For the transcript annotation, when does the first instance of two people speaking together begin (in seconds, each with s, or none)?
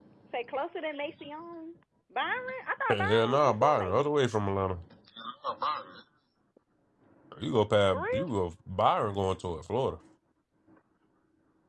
2.9 s